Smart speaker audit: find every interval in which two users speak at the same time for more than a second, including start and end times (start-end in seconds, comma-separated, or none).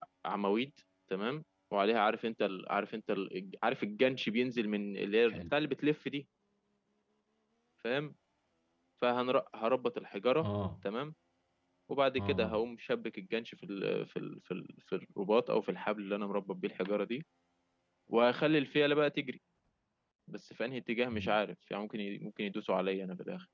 none